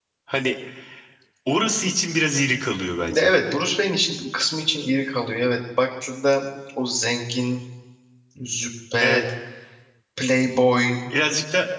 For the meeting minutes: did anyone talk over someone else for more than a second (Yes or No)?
No